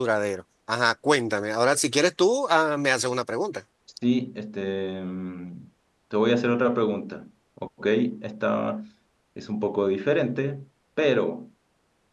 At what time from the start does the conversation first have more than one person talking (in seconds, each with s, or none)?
none